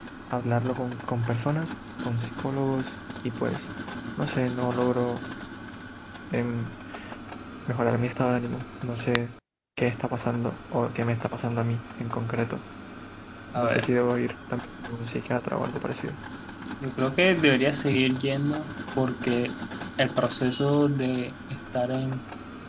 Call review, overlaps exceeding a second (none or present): none